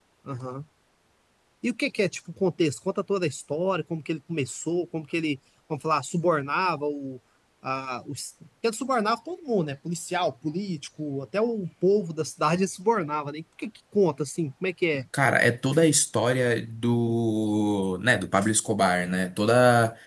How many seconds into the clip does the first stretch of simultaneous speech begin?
none

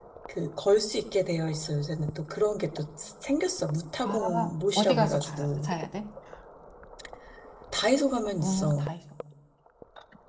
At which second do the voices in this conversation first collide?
4.0 s

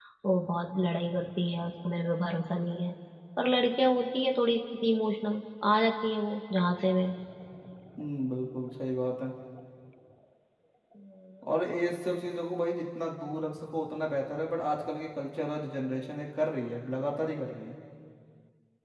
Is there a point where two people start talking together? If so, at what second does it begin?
none

